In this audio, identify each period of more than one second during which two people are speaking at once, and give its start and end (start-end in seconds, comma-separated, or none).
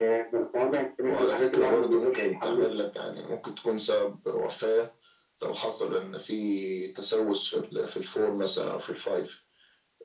1.0-2.7